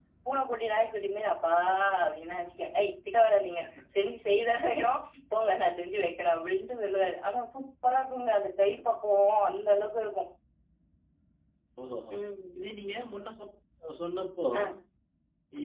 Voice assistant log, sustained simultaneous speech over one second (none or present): none